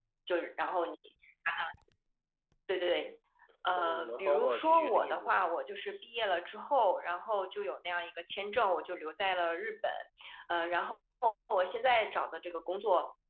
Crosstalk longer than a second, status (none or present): present